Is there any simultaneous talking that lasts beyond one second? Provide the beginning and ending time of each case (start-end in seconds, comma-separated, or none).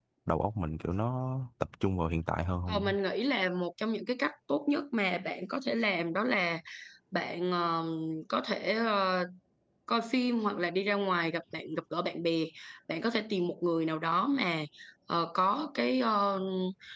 none